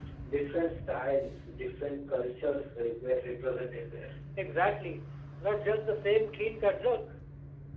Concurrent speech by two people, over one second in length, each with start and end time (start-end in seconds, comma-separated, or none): none